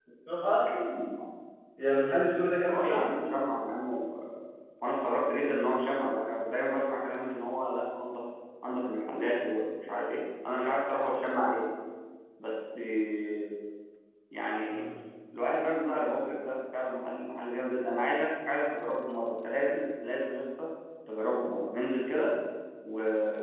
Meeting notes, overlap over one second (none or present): none